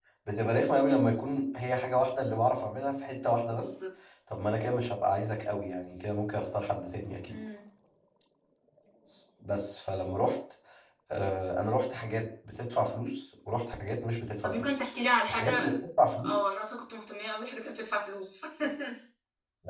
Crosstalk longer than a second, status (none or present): none